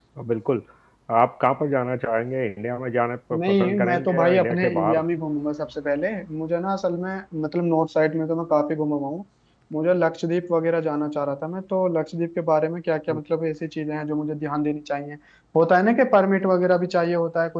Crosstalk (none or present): present